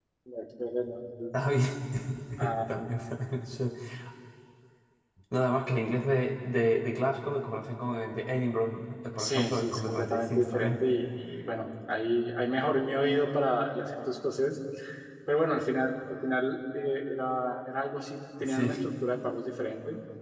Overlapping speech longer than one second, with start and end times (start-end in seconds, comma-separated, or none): 9.2-10.8